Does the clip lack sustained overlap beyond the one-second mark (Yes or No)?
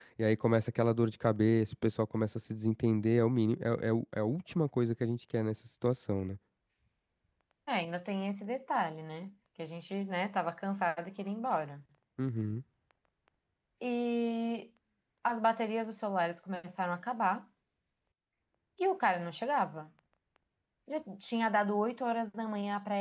Yes